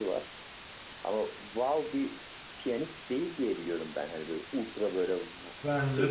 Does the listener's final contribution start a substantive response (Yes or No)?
Yes